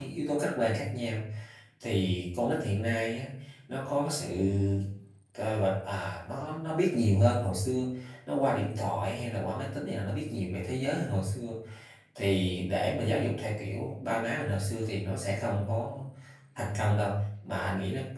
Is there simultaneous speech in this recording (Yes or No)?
No